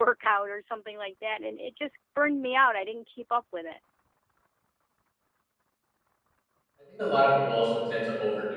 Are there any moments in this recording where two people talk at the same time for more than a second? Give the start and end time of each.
none

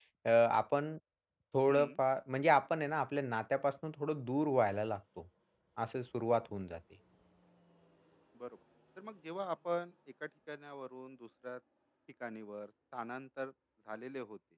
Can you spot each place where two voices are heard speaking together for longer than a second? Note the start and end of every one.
none

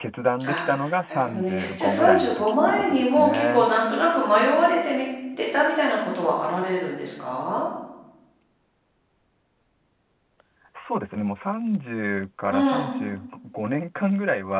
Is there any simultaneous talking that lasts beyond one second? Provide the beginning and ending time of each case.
1.1-3.7

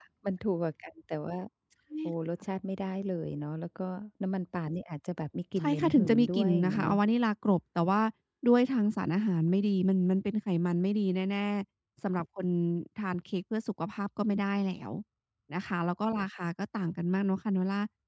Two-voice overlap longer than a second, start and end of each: 5.6-7.0

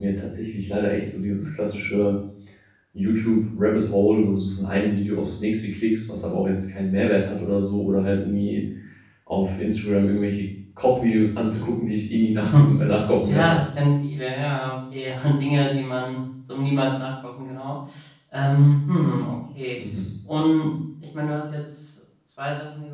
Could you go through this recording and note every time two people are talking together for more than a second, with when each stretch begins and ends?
none

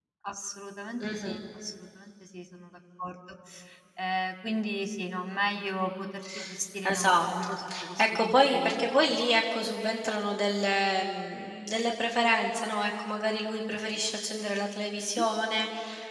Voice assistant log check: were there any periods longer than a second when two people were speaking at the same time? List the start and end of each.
6.8-8.7

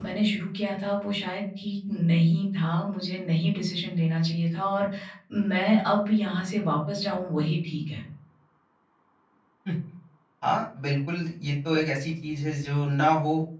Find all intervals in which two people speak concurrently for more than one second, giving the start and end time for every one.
none

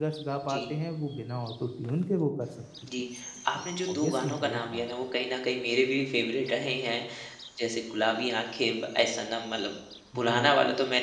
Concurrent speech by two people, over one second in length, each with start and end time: 3.6-4.9

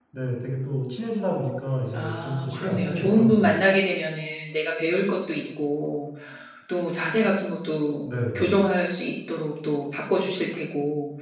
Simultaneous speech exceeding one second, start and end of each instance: 1.9-3.5

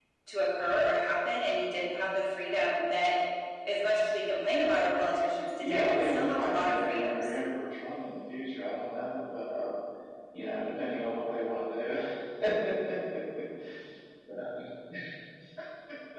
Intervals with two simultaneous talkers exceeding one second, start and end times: 5.6-7.3

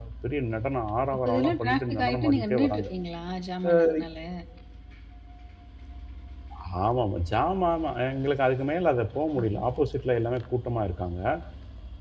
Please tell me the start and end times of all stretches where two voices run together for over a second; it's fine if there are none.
1.2-2.8

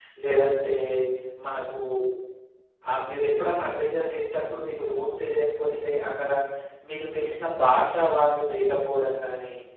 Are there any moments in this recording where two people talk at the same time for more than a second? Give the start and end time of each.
none

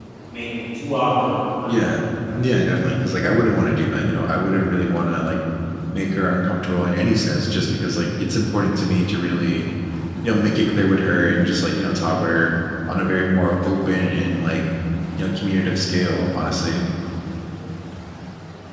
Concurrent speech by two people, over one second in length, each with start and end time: none

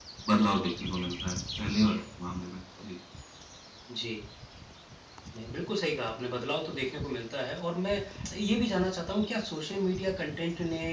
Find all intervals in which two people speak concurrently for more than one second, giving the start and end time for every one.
none

